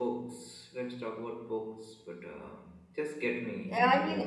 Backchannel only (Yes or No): No